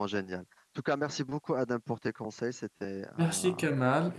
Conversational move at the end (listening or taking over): taking over